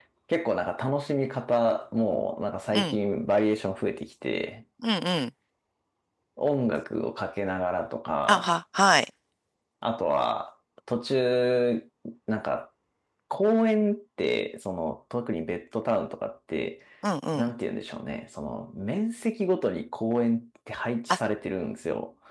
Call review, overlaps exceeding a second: none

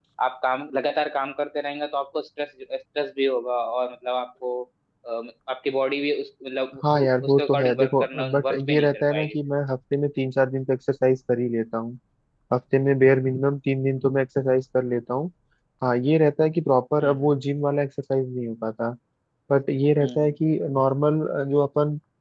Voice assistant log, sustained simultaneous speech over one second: present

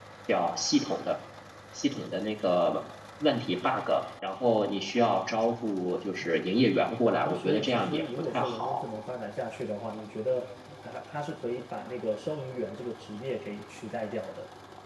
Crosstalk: present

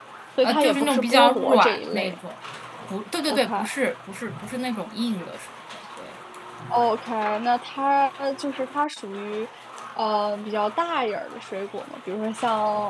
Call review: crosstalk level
present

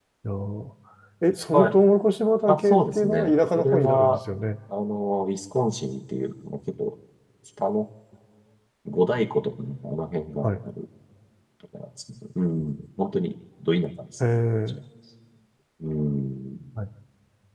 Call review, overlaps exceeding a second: present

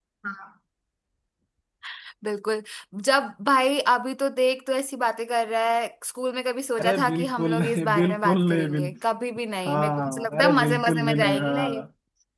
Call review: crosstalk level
present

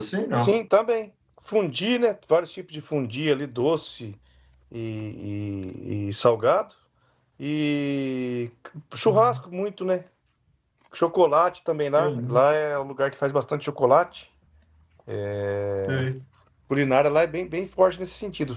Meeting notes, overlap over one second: none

